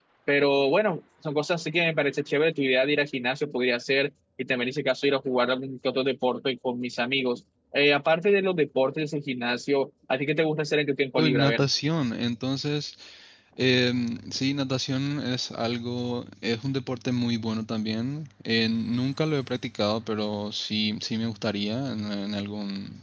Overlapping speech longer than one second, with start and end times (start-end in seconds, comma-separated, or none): none